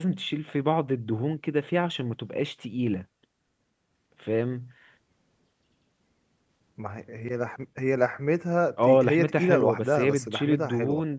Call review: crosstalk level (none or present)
present